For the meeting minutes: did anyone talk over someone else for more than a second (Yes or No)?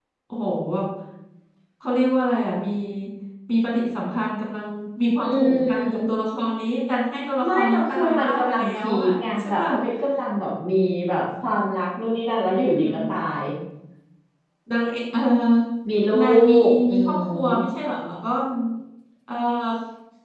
Yes